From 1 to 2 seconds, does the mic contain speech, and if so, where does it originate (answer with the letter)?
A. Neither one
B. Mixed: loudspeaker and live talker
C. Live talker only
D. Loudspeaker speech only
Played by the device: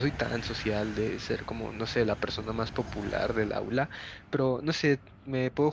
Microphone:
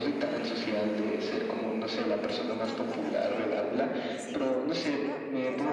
D